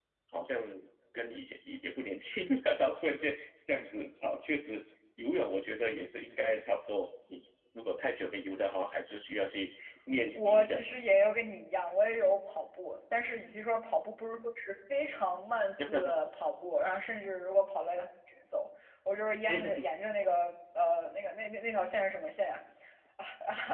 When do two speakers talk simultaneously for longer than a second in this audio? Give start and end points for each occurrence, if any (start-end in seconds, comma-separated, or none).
none